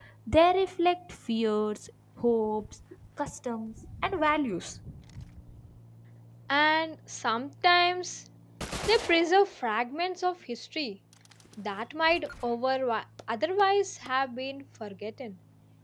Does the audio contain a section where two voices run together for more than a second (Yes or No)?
No